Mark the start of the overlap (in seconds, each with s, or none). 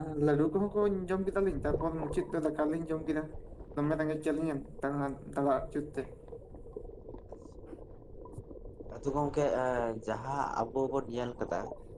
none